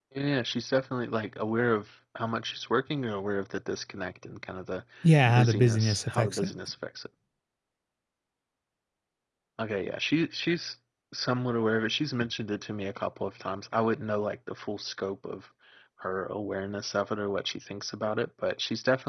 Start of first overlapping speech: 5.3 s

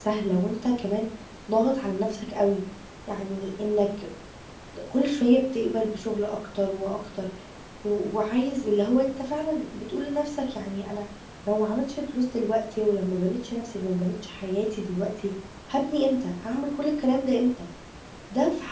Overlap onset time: none

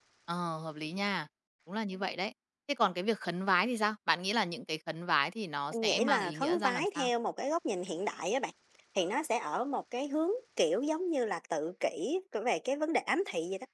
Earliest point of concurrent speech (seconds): 5.7 s

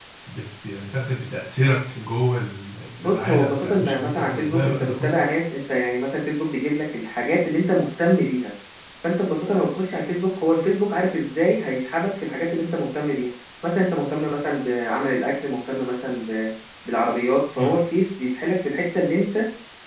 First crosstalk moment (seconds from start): 3.0 s

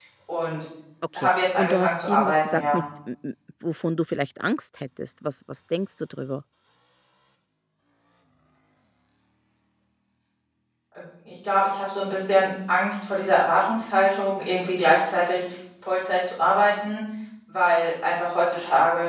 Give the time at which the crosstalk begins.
1.2 s

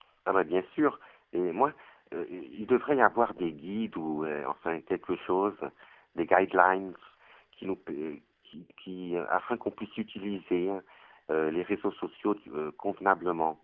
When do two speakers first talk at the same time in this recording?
none

